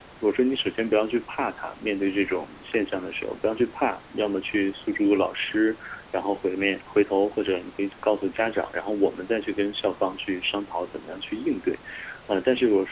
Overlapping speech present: No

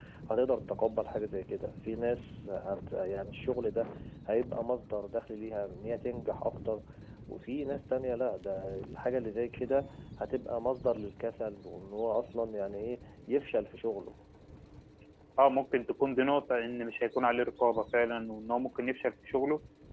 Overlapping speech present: No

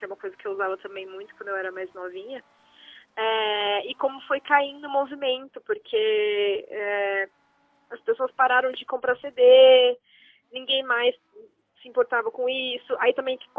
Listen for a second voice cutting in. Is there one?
No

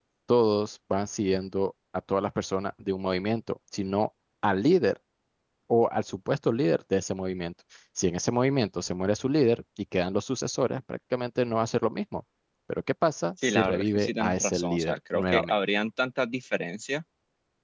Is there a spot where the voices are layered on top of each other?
Yes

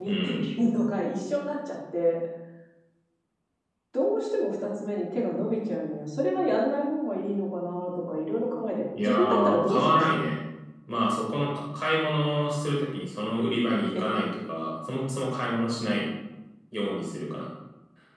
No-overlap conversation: No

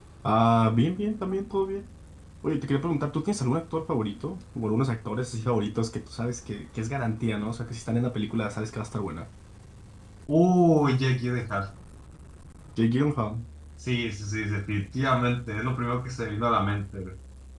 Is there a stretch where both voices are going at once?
No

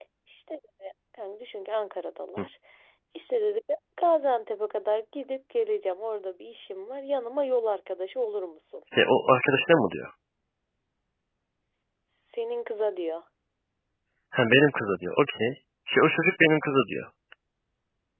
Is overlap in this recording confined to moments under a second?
Yes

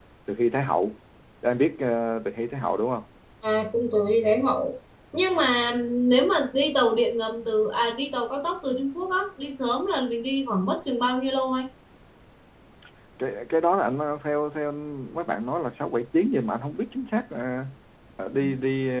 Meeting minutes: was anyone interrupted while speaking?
No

